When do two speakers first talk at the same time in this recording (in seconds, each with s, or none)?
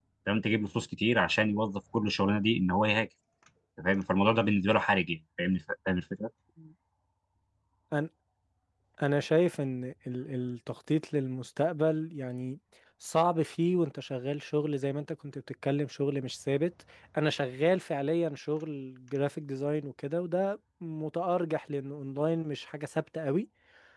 none